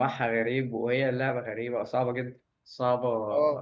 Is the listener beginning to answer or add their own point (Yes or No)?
No